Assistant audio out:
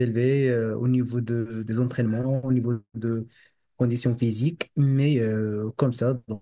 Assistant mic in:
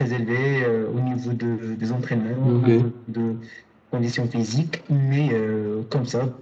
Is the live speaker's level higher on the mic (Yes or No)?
Yes